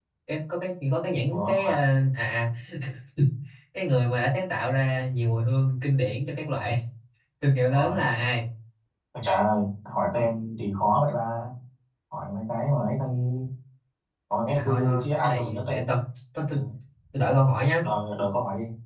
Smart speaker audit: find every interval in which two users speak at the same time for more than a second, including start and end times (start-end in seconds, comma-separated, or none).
14.6-15.9